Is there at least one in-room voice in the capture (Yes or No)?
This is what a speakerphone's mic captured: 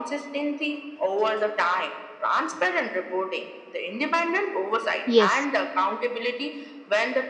Yes